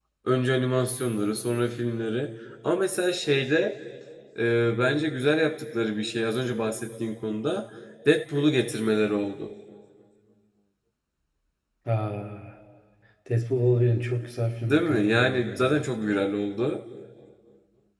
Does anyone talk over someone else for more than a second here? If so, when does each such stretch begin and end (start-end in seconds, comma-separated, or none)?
14.6-15.8